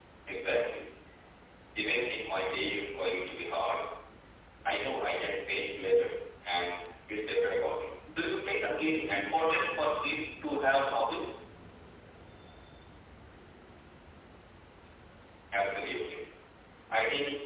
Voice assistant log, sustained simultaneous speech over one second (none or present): present